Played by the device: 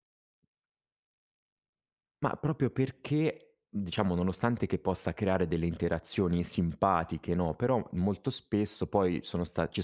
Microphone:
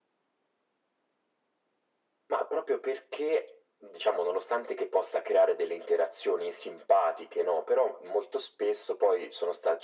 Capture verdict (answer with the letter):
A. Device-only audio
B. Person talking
A